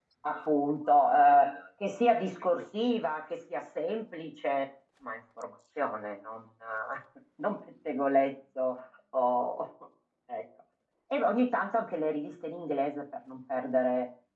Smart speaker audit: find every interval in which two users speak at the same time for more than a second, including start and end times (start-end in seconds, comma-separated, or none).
none